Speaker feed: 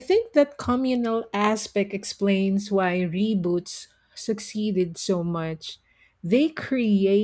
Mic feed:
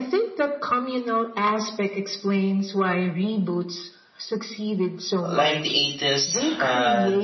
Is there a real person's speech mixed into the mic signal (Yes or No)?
Yes